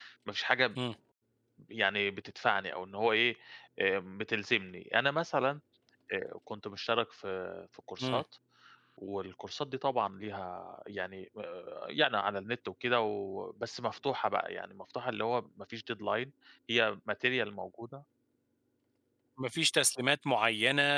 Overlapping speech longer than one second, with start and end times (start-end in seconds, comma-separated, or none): none